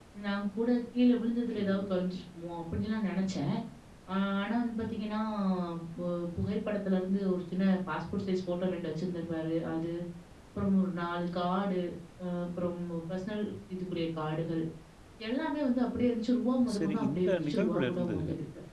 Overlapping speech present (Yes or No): Yes